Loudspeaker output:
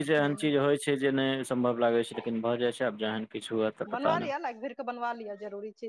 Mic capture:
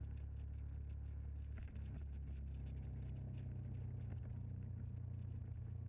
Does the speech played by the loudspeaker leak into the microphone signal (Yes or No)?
No